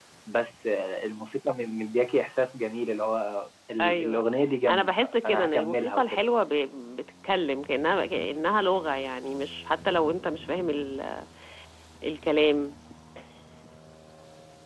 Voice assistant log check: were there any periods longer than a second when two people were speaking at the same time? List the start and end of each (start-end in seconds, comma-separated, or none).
4.7-6.2